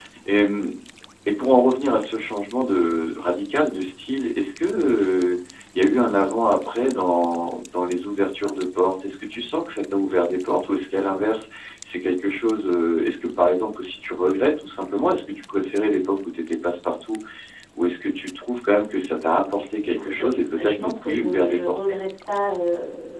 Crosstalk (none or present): present